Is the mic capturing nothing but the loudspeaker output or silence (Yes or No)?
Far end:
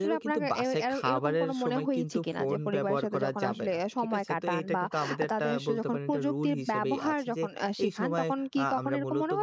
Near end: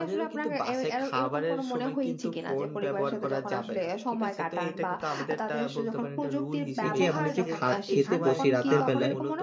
No